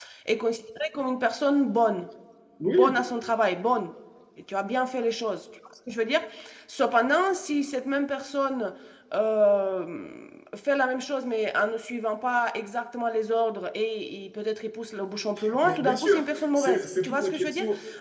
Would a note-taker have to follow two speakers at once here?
Yes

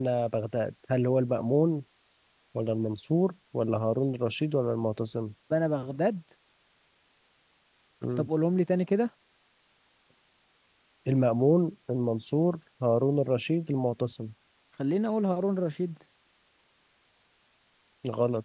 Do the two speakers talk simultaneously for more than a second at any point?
No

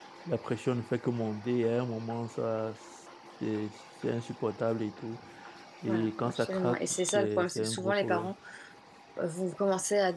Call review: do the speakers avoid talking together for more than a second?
No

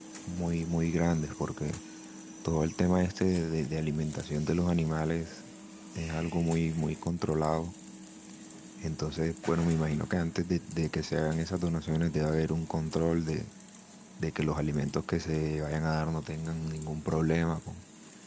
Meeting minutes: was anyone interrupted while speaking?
No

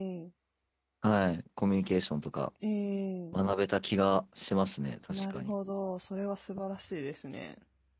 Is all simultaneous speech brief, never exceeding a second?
Yes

